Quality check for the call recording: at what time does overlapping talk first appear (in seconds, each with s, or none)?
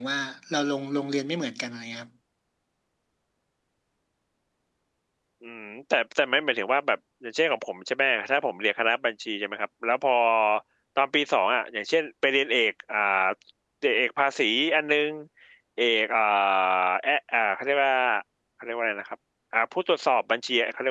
none